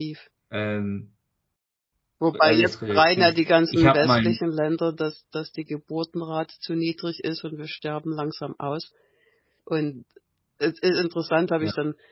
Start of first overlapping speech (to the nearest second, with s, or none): 2 s